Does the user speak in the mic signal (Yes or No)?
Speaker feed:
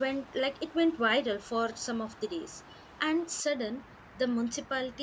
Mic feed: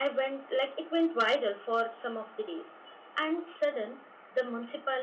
No